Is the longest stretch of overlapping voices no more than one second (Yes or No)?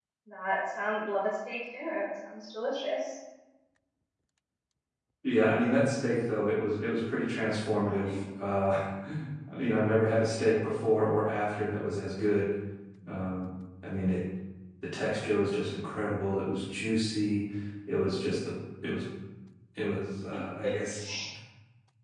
Yes